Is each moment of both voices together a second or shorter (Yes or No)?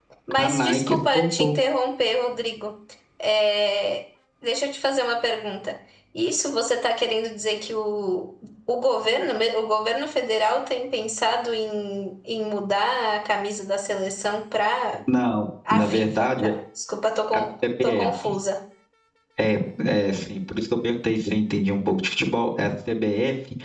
No